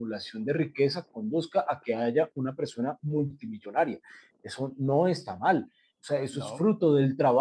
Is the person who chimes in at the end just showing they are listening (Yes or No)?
Yes